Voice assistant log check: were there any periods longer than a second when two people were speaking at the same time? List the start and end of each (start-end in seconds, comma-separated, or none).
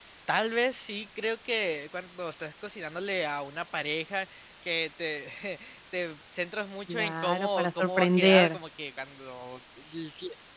6.9-8.5